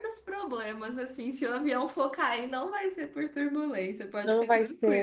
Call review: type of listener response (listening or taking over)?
taking over